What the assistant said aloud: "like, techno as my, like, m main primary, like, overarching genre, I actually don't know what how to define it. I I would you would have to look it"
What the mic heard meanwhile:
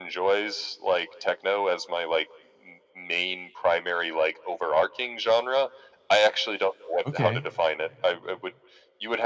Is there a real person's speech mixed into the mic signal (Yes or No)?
Yes